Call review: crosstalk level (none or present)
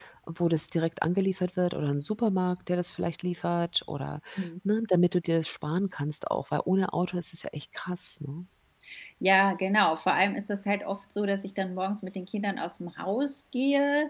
none